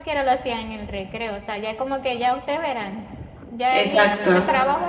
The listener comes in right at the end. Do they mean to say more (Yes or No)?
No